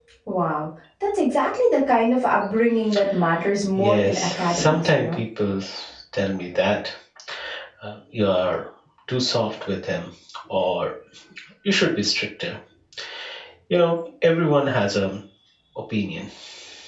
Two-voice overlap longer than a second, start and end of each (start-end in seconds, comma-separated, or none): 3.8-5.2